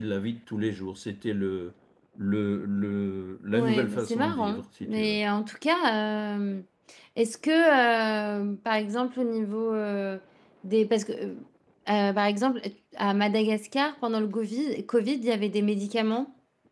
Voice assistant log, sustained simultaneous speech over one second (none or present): present